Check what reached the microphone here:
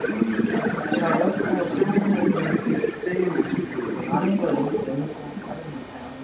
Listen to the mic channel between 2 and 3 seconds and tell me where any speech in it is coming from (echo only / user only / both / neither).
both